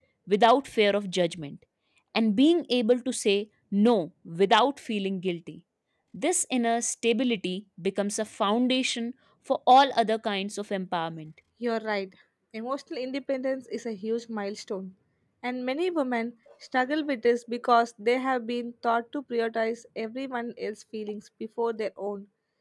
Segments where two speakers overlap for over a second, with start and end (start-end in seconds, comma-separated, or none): none